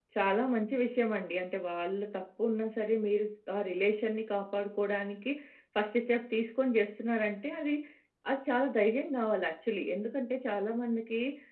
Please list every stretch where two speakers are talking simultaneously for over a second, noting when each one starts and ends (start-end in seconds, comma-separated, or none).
none